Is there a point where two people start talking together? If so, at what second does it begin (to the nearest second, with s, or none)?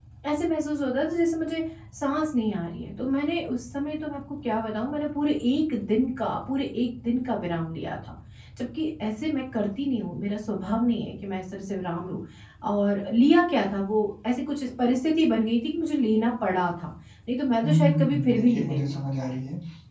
18 s